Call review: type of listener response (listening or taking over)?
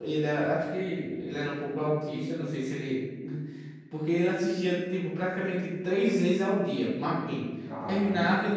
listening